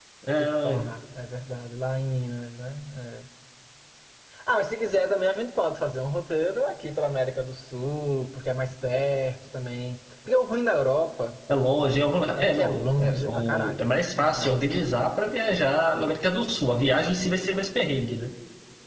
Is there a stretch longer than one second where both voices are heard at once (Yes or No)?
Yes